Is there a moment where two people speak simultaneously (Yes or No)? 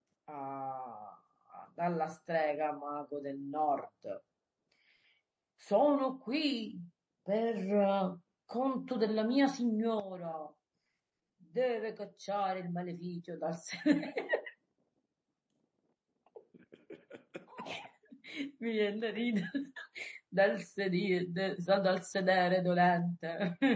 No